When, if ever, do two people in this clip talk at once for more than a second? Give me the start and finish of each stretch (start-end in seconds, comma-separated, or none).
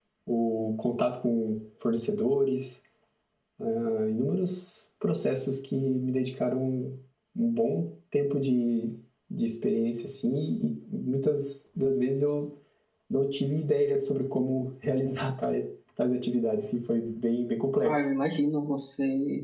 none